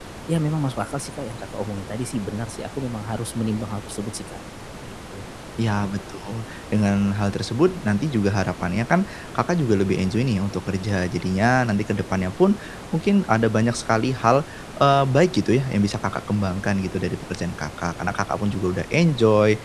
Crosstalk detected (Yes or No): No